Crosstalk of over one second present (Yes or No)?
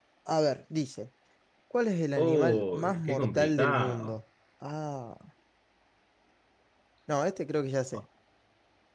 Yes